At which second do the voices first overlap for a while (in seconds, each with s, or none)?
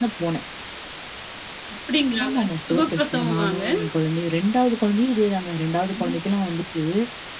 2.2 s